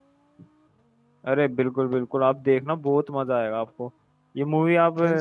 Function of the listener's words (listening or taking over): listening